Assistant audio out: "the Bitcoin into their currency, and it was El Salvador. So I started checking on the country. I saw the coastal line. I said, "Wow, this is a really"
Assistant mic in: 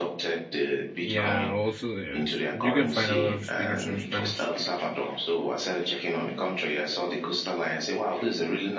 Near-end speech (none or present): present